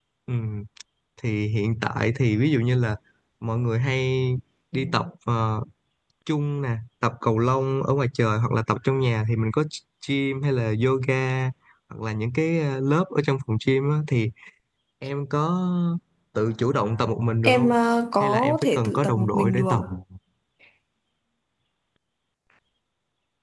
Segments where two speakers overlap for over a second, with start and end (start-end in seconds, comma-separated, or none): 18.2-19.8